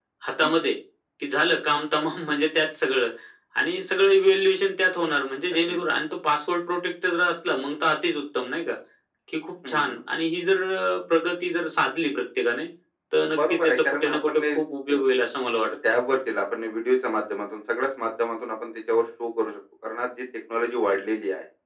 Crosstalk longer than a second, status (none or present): present